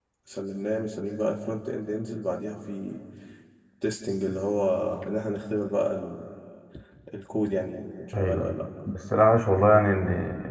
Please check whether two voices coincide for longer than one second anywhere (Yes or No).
No